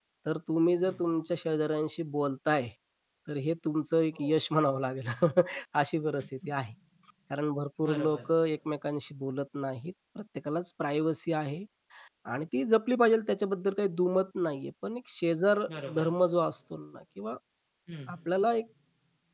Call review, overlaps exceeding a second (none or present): none